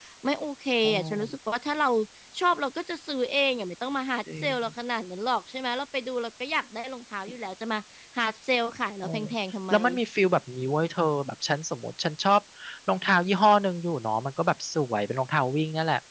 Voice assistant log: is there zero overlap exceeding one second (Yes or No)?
Yes